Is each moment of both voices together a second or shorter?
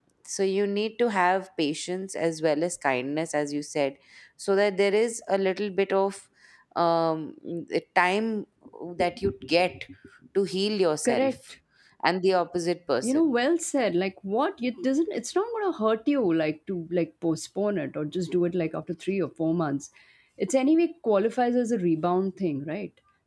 Yes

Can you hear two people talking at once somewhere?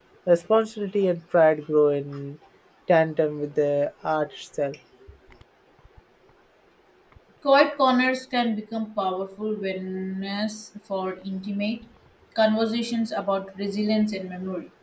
No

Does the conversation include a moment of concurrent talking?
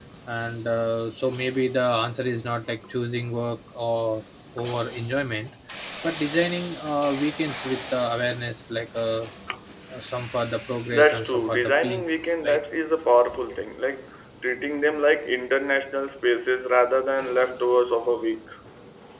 Yes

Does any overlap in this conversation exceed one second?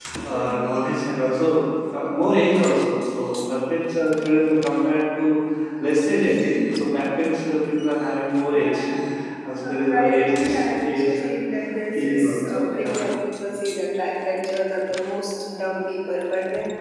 Yes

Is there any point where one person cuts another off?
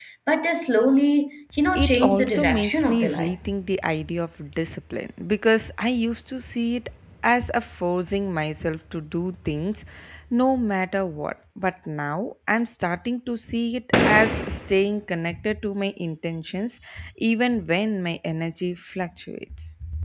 Yes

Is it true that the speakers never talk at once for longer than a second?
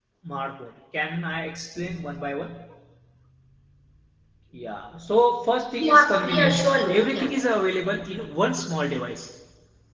No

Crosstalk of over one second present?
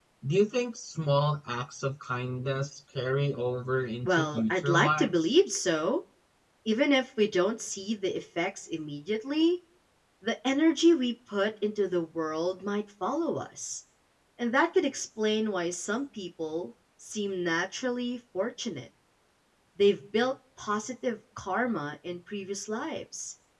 Yes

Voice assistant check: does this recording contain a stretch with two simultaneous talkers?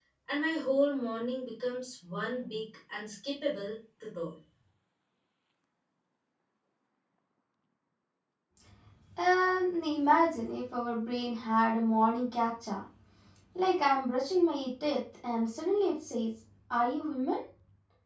No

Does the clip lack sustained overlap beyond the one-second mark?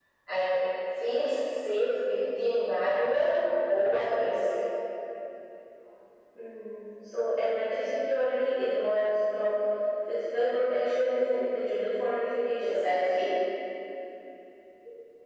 Yes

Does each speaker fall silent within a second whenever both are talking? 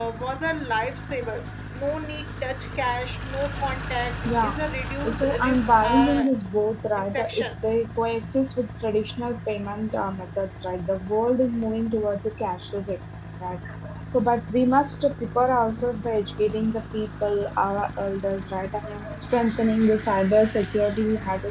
No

